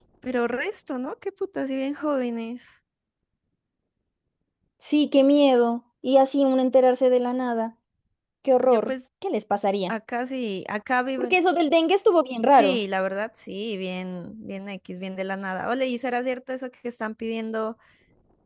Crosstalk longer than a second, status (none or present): none